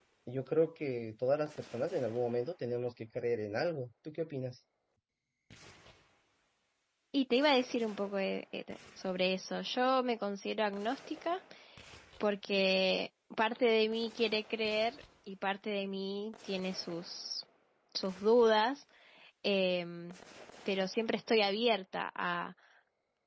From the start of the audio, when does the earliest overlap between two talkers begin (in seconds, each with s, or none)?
none